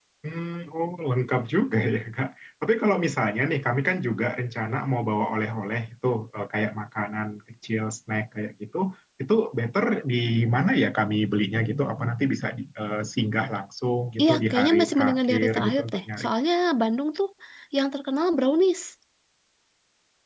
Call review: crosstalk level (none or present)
present